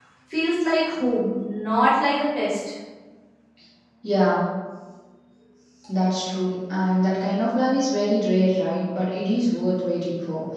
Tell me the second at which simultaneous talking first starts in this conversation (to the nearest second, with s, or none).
none